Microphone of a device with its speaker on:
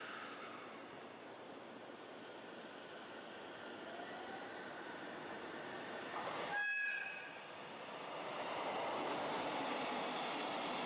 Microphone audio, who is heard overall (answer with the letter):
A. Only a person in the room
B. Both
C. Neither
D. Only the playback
C